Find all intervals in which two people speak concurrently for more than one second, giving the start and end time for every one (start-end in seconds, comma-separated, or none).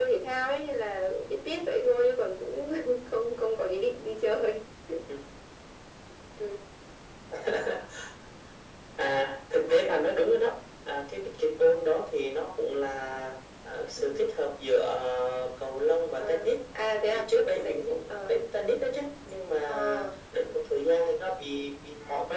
17.1-18.4